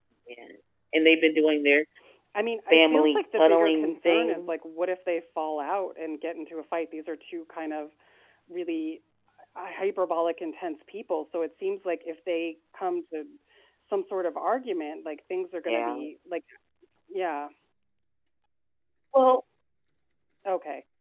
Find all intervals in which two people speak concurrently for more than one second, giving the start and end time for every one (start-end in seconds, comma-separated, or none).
2.7-4.5